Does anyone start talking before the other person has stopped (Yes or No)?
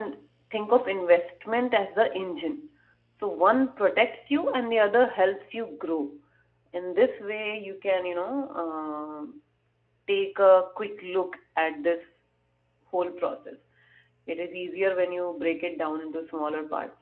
No